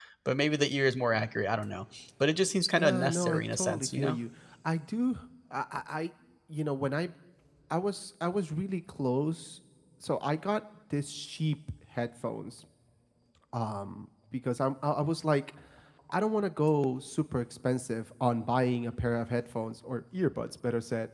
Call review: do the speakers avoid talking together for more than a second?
No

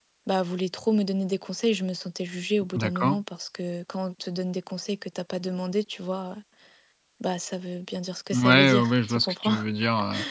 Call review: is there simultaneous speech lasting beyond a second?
Yes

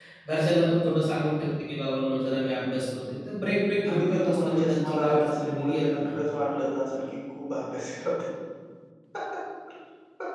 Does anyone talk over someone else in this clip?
Yes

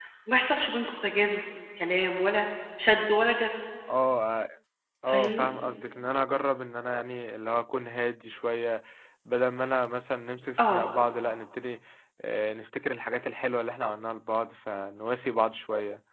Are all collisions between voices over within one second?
Yes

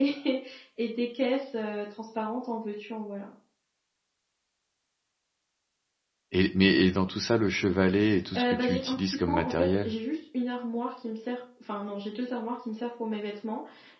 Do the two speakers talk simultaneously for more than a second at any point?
Yes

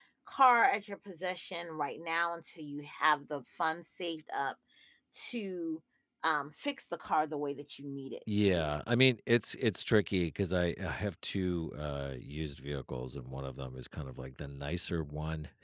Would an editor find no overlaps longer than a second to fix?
Yes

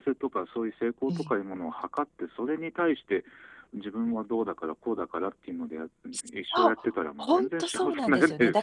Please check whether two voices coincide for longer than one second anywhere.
Yes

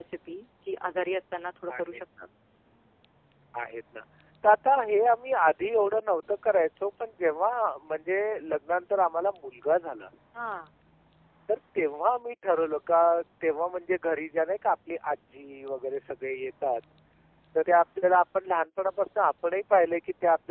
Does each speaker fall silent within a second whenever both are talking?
Yes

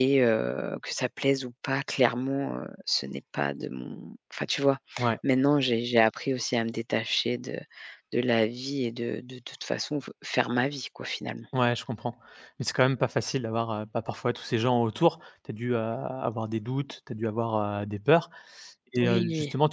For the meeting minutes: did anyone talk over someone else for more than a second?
No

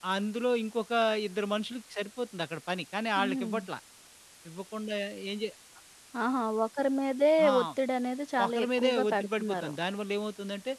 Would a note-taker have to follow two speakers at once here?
Yes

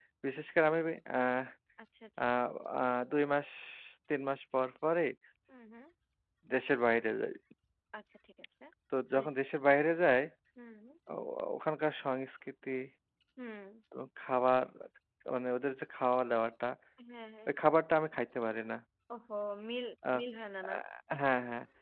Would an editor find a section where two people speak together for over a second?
No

